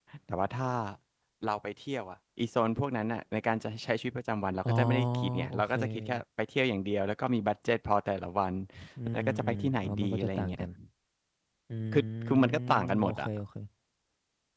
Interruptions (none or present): present